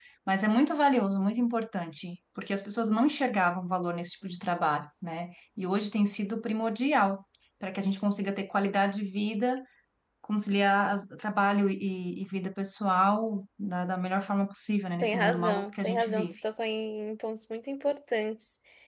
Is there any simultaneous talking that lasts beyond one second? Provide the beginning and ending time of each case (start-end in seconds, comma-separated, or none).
15.0-16.3